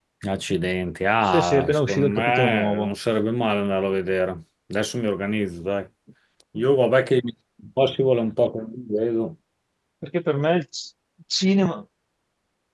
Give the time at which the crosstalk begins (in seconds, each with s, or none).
1.2 s